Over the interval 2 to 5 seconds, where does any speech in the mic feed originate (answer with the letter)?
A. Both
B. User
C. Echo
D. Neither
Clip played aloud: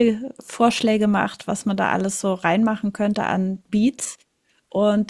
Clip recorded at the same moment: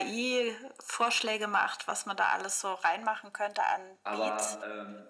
A